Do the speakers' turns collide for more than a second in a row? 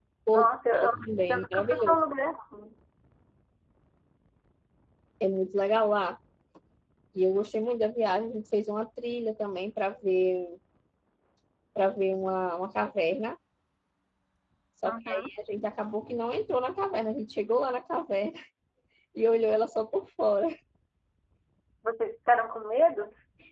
Yes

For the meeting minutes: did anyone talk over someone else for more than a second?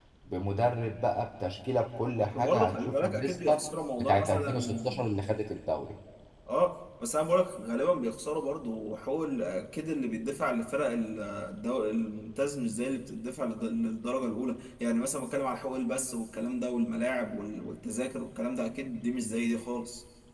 Yes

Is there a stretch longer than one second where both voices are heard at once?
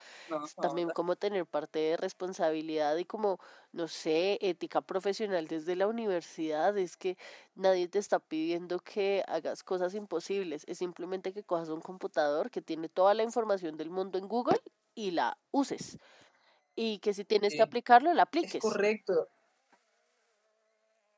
No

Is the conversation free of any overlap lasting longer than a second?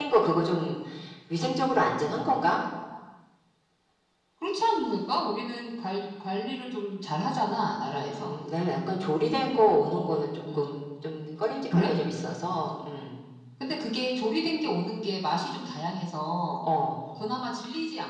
Yes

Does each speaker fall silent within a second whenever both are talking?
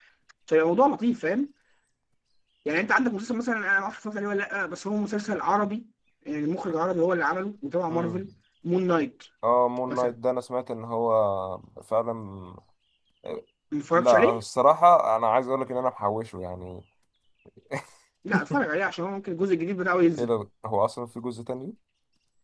Yes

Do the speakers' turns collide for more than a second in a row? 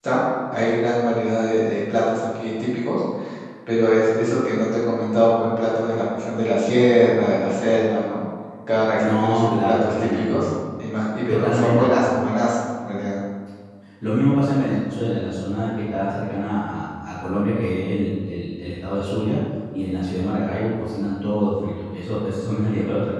Yes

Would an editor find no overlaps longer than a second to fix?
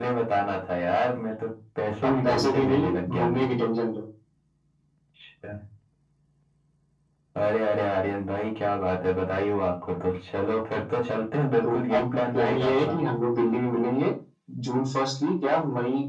No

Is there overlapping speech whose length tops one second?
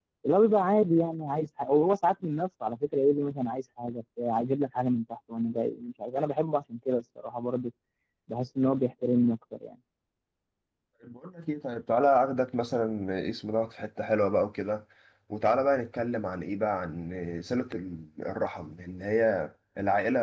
No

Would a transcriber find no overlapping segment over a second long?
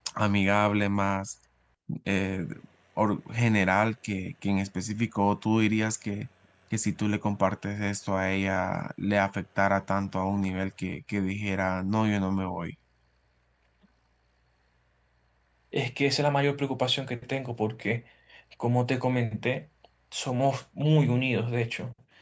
Yes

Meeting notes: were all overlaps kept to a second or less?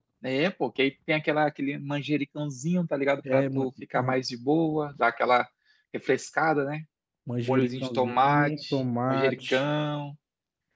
No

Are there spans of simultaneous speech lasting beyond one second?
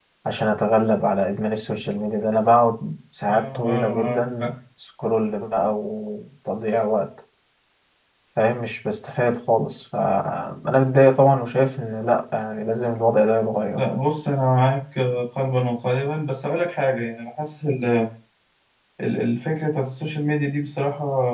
Yes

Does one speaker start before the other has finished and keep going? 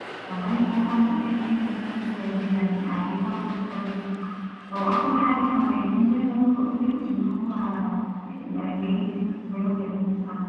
No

